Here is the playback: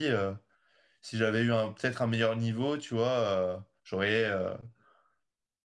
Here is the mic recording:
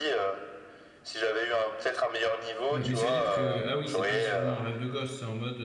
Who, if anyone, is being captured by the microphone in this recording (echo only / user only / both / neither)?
both